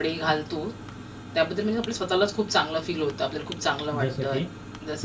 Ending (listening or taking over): listening